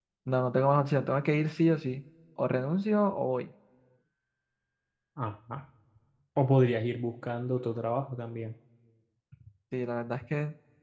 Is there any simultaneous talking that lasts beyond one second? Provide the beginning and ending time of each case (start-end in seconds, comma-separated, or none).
none